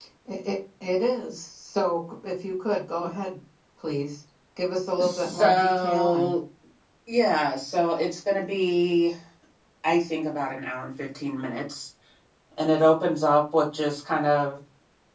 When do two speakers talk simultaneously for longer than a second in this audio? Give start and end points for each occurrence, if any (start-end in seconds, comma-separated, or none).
5.0-6.3